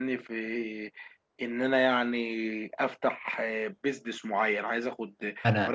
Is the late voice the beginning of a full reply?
No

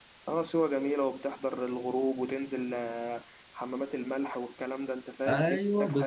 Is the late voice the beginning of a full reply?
Yes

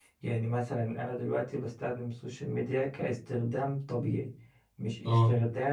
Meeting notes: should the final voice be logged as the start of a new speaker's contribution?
No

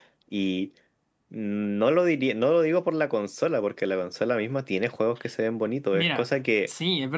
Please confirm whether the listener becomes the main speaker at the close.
Yes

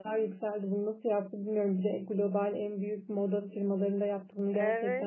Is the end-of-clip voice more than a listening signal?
Yes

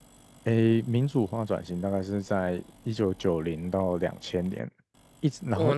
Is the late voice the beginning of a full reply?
Yes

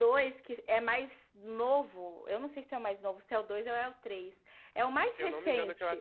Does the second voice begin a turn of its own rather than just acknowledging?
Yes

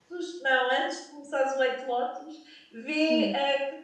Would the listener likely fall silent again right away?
Yes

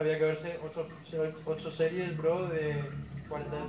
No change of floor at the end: No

